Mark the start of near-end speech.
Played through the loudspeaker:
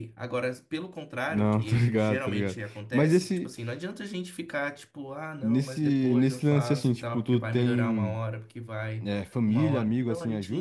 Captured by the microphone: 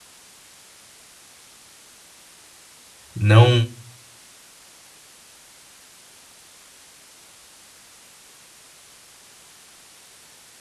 3.1 s

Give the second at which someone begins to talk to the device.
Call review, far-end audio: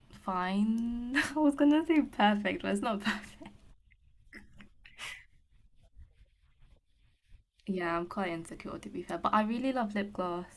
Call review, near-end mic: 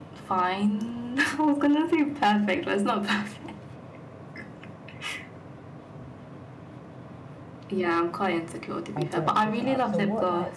9.0 s

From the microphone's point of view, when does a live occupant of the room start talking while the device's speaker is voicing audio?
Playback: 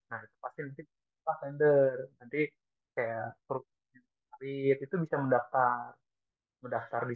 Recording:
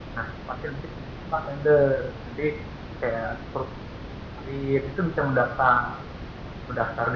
none

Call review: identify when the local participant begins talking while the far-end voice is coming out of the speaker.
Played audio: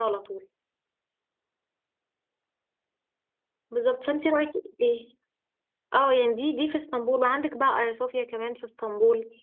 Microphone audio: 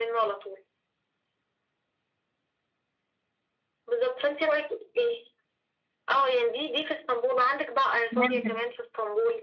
8.2 s

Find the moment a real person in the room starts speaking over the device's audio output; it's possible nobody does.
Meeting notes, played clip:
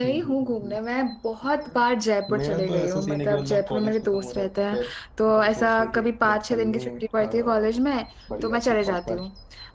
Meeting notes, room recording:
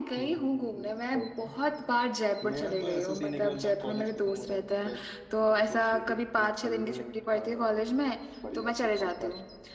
1.1 s

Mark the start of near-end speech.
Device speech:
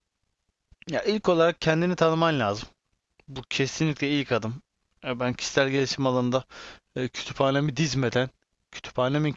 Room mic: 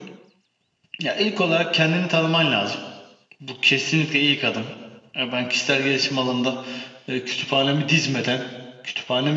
none

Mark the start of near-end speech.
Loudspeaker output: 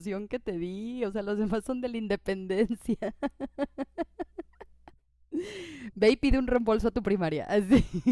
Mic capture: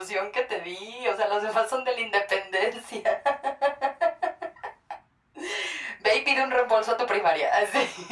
none

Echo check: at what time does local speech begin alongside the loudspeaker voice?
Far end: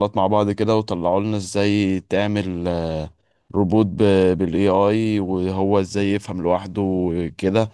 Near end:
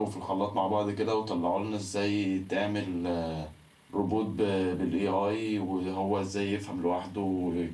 none

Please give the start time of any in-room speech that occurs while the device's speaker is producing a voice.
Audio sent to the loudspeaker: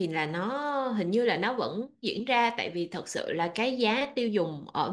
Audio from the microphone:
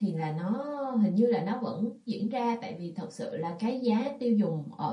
none

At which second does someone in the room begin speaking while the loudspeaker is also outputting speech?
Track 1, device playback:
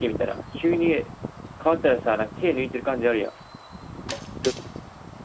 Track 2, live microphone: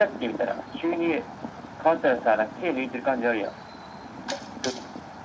none

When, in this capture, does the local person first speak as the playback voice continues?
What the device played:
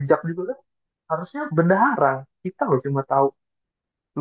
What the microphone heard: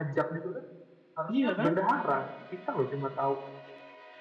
1.3 s

